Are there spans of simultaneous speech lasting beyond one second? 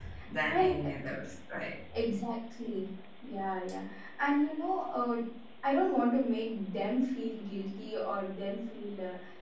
No

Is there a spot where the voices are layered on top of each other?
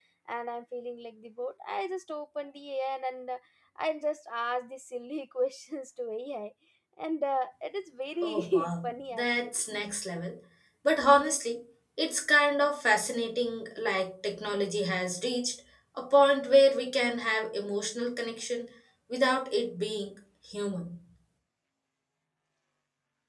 Yes, from 8.2 s

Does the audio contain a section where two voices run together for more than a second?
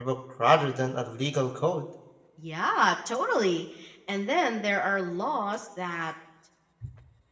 No

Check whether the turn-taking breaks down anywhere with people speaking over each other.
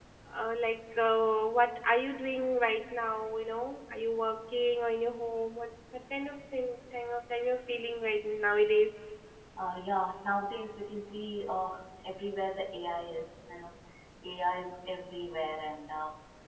No

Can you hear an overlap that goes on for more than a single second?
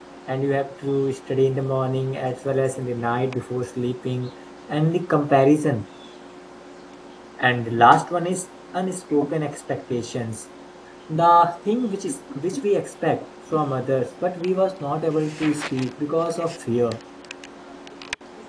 No

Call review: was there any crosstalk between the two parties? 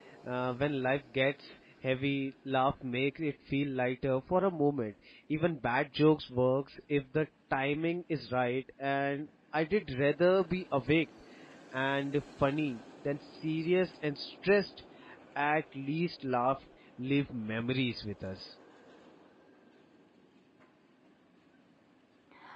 No

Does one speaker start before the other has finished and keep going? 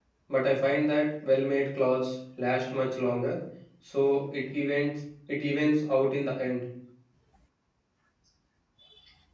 No

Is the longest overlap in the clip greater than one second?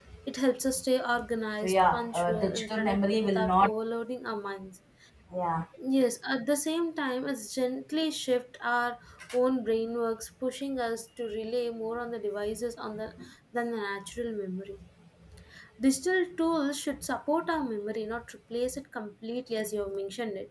Yes, from 1.6 s

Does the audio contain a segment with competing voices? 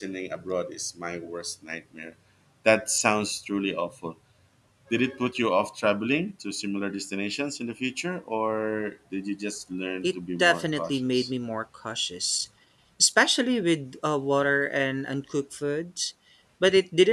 Yes, from 10.0 s

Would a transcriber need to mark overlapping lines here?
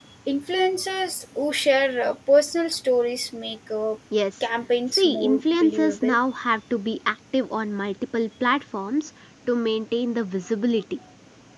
Yes, from 5.0 s

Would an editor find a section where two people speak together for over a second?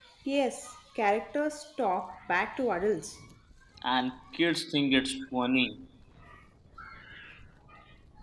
No

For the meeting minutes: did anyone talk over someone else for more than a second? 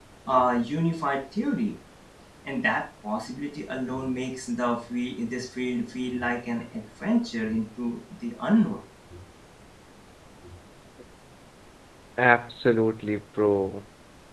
No

